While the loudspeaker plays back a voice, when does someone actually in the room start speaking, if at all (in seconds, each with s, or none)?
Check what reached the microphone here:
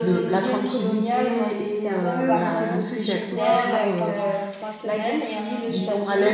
1.9 s